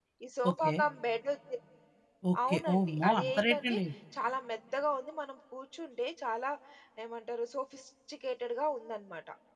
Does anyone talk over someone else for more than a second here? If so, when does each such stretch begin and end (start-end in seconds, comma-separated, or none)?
2.5-3.8